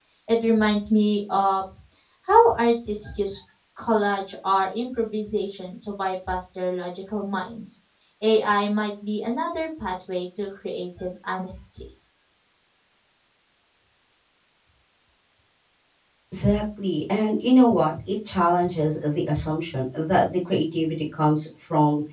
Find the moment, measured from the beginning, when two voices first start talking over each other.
none

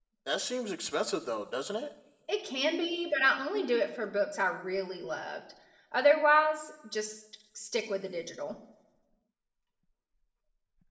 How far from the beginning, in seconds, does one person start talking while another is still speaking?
none

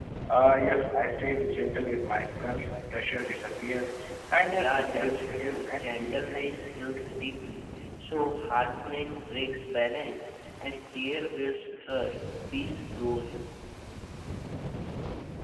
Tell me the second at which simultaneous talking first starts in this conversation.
4.5 s

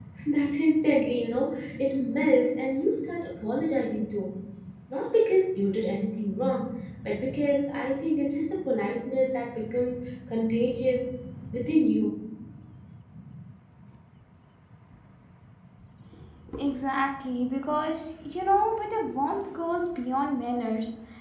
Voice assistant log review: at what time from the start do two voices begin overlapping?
none

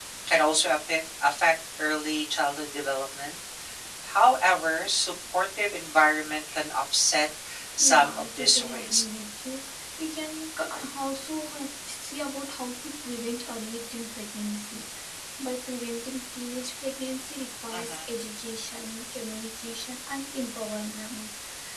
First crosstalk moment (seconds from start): 7.8 s

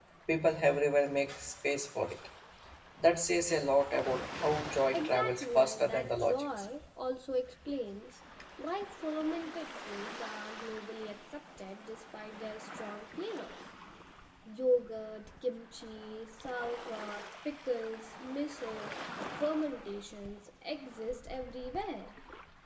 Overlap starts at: 4.9 s

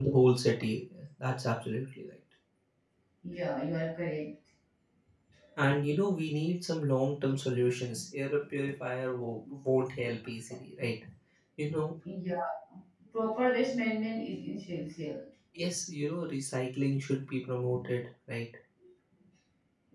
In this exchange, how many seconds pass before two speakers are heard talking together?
none

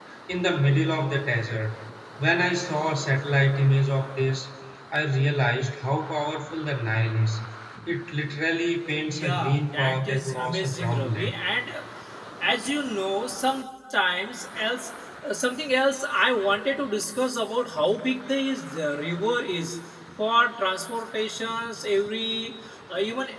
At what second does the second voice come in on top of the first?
9.1 s

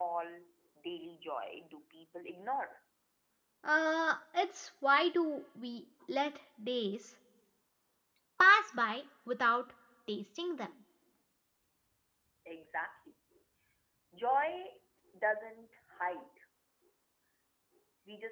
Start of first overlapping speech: none

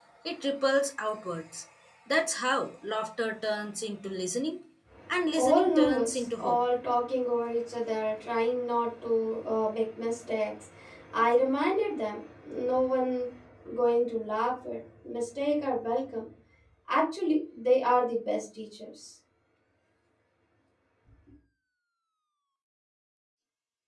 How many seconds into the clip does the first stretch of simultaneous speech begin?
5.3 s

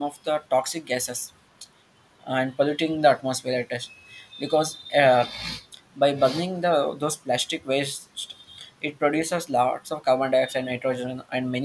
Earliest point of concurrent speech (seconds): none

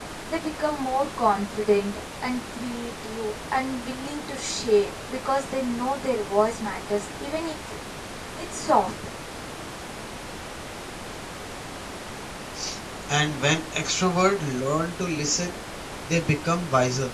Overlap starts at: none

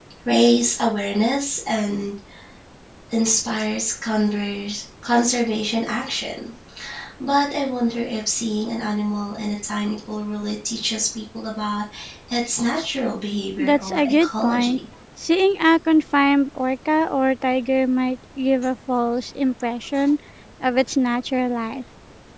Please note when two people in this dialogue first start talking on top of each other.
13.6 s

